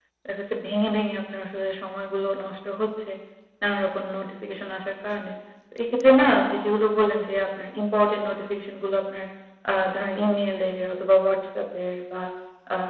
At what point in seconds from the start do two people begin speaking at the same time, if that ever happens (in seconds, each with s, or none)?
none